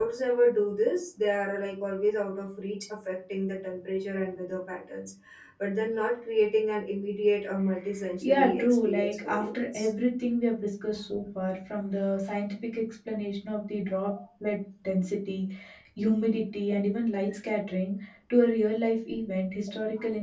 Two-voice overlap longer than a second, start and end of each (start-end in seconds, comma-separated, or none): 8.2-9.9